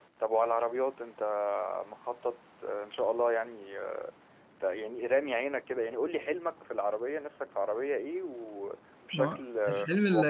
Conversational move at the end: taking over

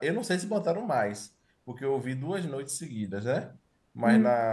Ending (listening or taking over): listening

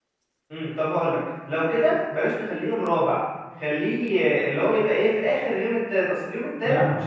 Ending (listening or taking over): taking over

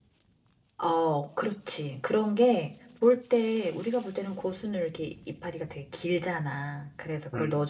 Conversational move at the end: listening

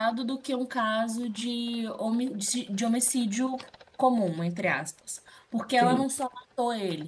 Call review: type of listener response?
listening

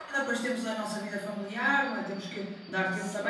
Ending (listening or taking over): listening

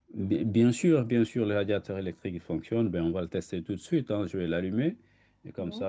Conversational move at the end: listening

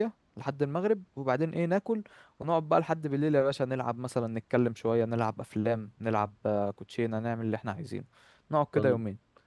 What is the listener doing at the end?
taking over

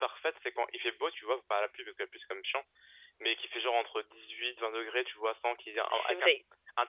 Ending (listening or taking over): listening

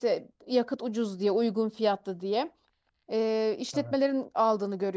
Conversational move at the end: listening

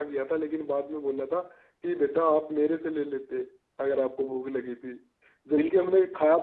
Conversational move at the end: listening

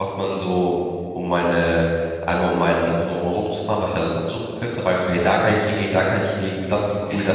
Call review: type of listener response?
taking over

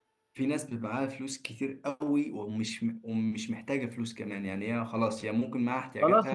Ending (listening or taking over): taking over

